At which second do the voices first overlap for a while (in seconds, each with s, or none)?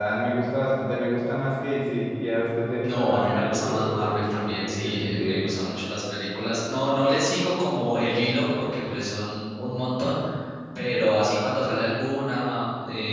2.8 s